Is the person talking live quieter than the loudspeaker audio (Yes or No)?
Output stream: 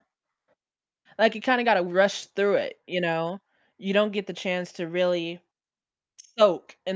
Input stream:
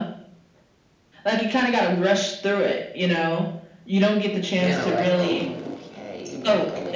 Yes